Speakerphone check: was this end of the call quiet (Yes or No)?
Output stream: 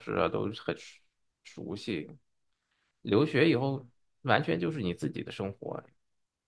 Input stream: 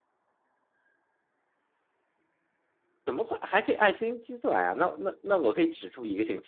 No